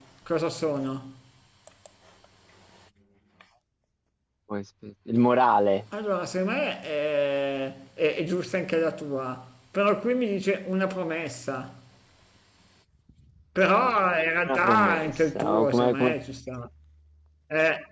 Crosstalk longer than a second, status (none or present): present